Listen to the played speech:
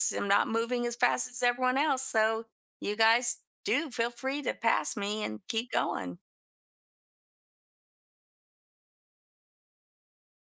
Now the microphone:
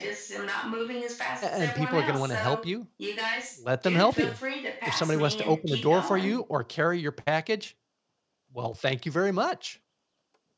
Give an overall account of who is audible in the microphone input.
both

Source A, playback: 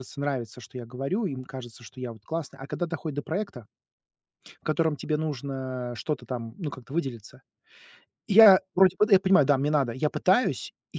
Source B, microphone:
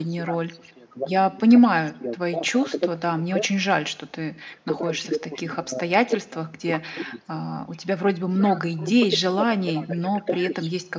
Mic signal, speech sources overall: both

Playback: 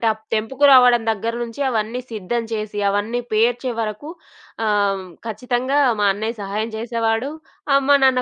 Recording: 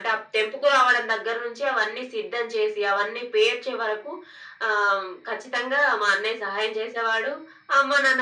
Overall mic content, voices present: echo only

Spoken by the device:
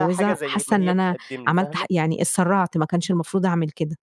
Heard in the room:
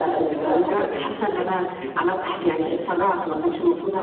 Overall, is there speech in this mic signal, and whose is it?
echo only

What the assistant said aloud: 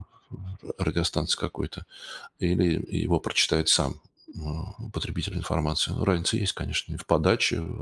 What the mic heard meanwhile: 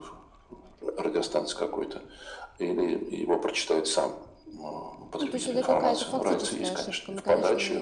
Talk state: both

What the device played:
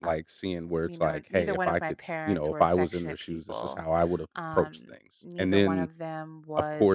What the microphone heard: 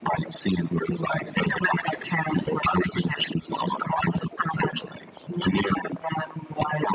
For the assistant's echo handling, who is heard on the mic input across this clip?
echo only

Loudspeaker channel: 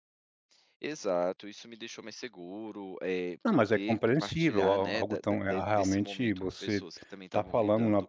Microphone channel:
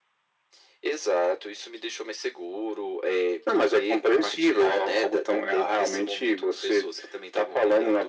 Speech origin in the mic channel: echo only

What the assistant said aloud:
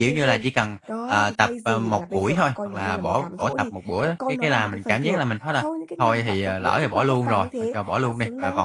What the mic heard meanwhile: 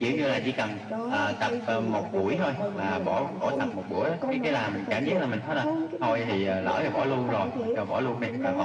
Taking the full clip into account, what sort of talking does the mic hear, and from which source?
echo only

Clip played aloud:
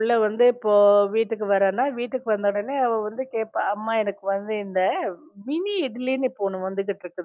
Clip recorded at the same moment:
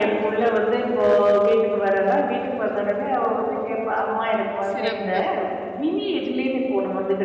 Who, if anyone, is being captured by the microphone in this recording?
both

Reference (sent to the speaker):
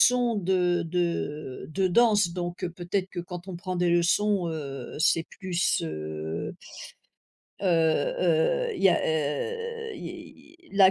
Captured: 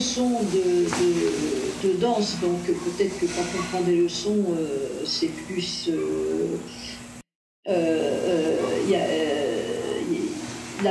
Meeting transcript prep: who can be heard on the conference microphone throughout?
echo only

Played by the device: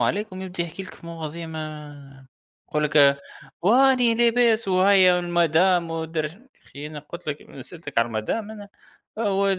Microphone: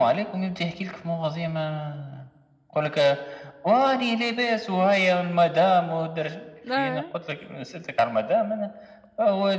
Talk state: both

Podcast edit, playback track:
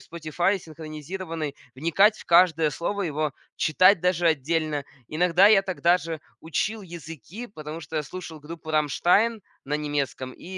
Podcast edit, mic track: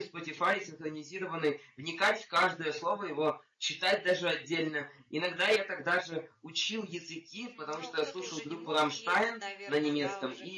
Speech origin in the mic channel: both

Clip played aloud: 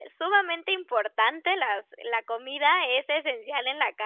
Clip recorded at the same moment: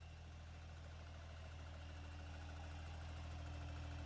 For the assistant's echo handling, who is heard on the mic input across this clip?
neither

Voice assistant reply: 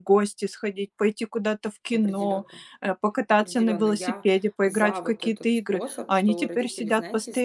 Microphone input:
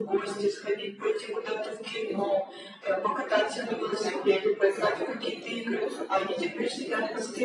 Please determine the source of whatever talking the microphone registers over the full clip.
echo only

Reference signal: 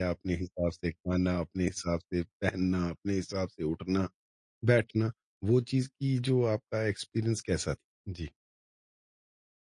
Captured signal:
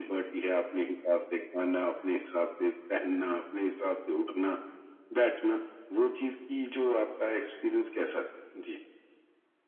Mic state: echo only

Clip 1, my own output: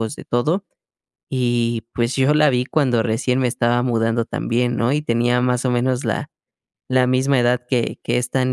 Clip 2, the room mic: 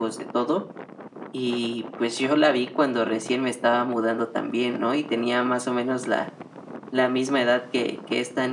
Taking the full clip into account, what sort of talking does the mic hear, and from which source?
echo only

